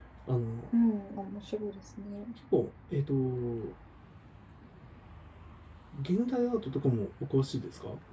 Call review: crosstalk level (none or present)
none